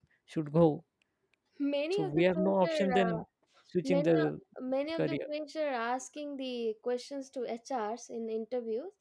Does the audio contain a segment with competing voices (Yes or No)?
Yes